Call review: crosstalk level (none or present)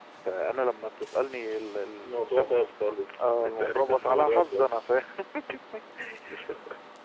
present